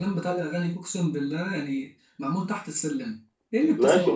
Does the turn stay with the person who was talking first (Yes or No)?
No